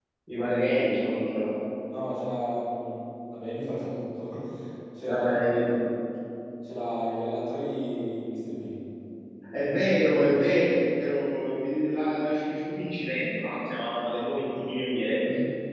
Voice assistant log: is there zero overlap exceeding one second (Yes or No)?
Yes